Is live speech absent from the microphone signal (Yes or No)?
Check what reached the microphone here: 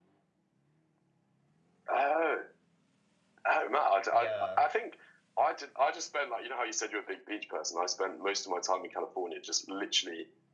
No